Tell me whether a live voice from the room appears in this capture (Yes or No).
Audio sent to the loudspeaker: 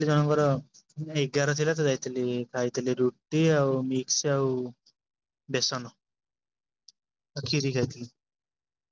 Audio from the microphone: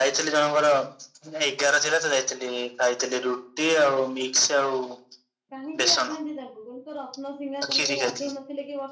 Yes